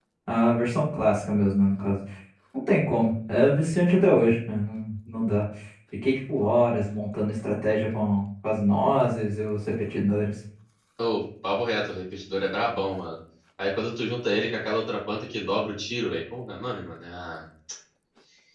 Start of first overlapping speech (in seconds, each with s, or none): none